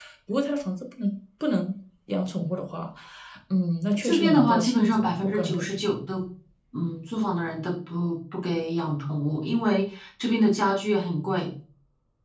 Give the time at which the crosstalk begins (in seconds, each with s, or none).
4.0 s